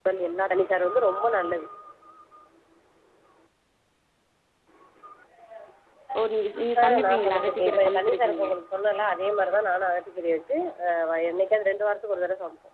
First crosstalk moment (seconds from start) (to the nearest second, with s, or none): 7 s